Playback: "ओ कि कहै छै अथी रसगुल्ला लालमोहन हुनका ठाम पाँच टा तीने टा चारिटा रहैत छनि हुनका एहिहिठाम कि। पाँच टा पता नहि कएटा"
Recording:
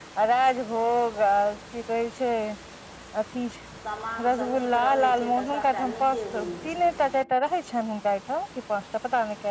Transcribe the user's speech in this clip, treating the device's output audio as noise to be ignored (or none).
समांग सँ नीक रहै छै तऽ सभ टा नीके होइ छै